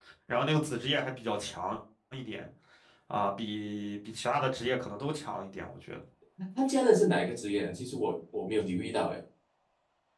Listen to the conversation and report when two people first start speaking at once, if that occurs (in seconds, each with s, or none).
none